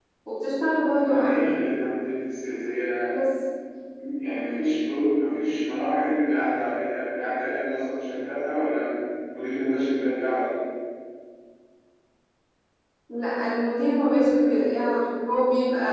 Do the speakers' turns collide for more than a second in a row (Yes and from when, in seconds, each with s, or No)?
No